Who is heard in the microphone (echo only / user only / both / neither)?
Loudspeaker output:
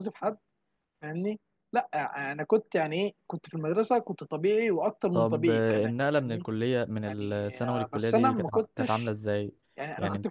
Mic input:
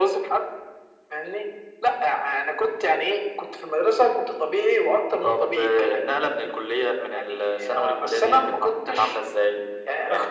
echo only